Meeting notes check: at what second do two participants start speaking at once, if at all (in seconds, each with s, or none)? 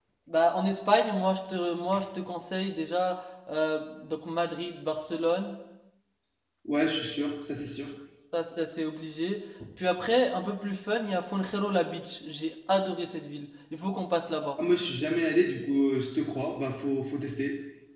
none